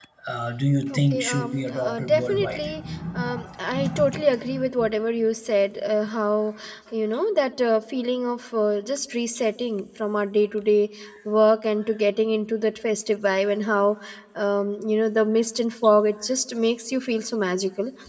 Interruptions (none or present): present